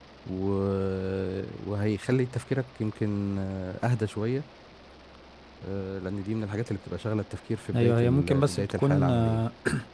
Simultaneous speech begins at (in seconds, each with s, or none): 7.7 s